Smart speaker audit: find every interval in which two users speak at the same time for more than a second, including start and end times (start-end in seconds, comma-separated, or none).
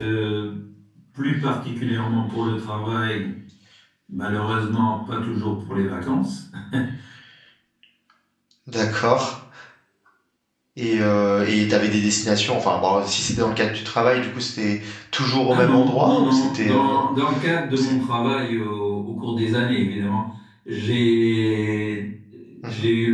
15.5-17.0